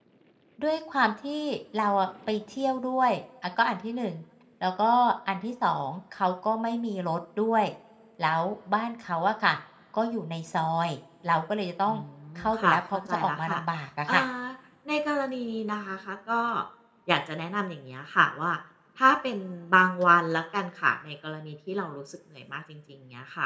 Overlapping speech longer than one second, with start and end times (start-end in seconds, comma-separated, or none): 12.4-13.6